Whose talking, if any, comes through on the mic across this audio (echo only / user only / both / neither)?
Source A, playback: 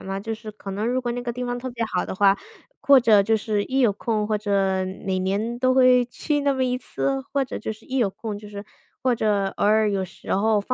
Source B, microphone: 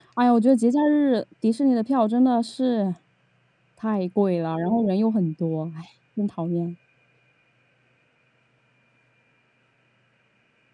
user only